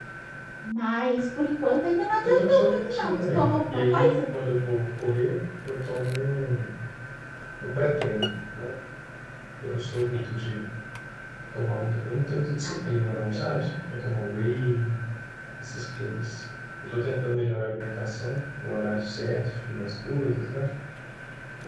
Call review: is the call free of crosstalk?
No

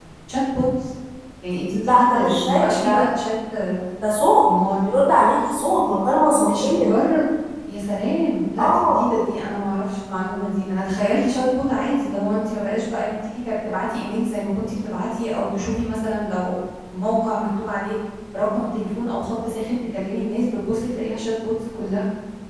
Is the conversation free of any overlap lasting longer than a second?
No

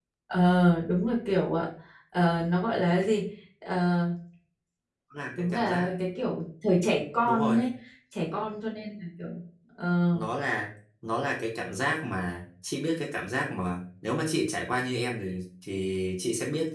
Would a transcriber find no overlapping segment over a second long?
Yes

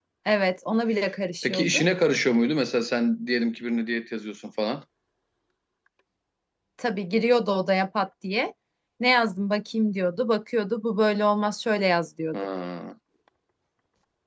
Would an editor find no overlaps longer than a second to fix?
Yes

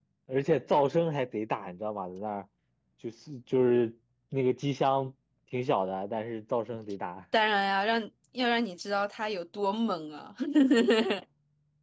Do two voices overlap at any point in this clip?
No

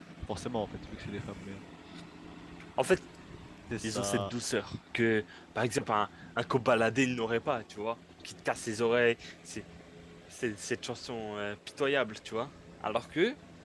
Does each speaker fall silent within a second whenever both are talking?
Yes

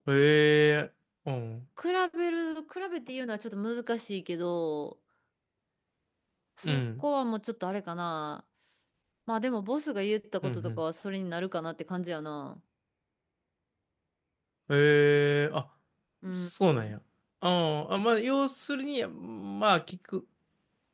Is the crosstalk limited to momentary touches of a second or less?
Yes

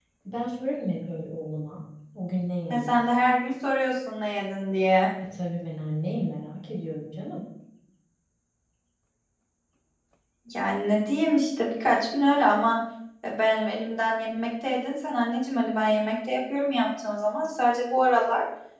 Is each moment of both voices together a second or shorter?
Yes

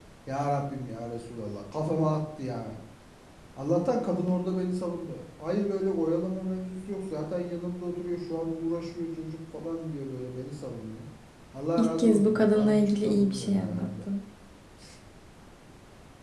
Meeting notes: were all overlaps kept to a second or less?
No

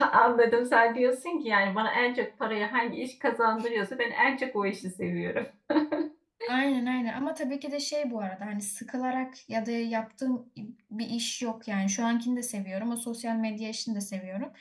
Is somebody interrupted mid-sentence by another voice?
No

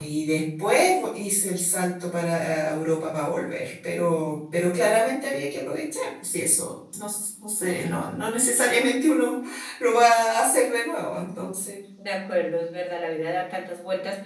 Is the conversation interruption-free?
Yes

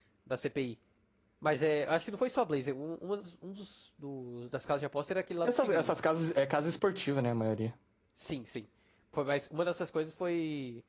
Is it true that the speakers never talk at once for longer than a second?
Yes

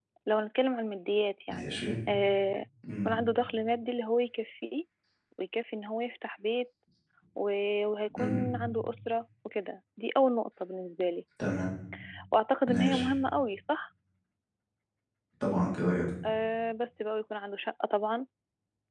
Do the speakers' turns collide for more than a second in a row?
No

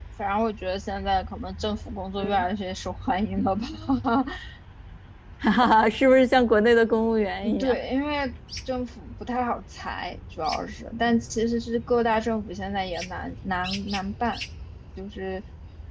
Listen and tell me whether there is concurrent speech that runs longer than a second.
No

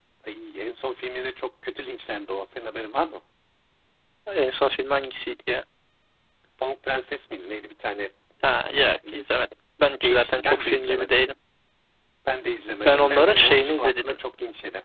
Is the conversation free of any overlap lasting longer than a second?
No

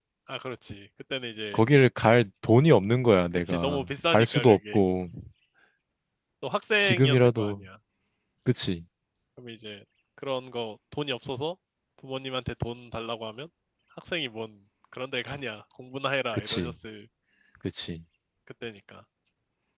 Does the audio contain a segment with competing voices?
Yes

